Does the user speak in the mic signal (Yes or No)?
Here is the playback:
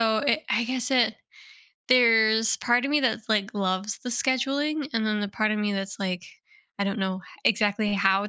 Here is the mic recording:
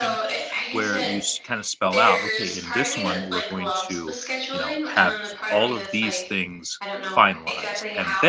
Yes